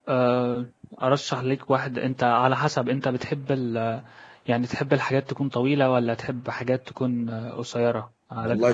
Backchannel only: No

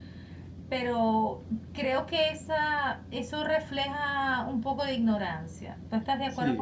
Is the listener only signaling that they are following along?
No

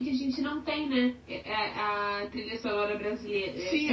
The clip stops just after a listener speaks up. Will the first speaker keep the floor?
No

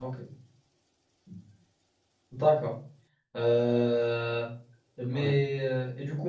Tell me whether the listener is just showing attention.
Yes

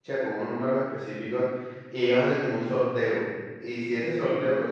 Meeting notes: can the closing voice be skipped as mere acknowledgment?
Yes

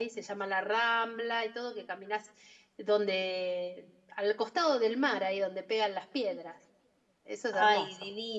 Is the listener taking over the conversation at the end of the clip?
Yes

